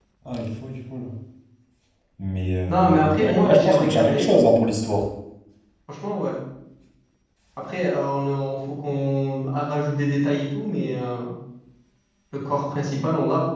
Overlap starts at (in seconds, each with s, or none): 2.7 s